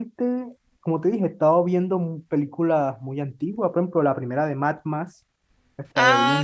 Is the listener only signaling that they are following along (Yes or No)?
No